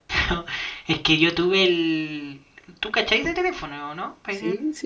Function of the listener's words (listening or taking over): taking over